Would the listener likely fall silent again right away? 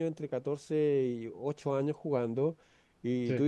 Yes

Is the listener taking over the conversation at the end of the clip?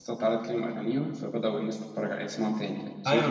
Yes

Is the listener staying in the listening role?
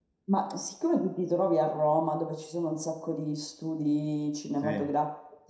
Yes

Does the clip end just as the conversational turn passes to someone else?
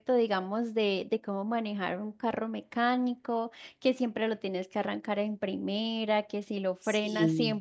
No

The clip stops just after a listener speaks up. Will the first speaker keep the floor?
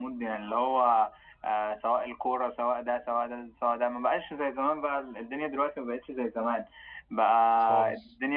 Yes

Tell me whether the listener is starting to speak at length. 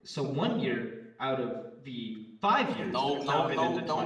Yes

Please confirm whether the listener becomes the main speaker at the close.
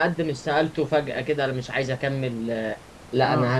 No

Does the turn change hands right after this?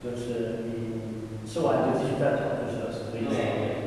Yes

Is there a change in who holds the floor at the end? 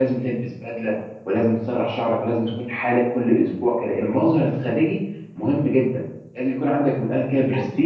Yes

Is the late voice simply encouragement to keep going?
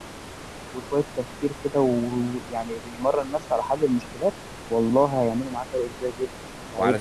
No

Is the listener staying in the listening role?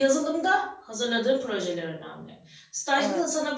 Yes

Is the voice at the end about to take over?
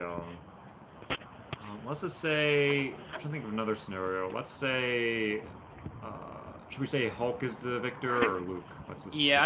Yes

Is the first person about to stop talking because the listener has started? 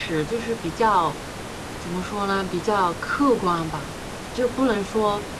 No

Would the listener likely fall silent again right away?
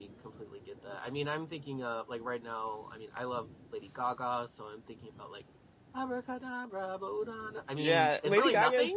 No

